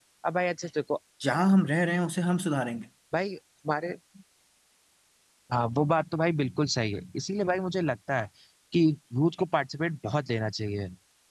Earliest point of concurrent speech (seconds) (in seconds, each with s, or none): none